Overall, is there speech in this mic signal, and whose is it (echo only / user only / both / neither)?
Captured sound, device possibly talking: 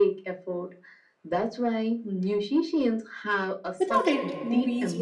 both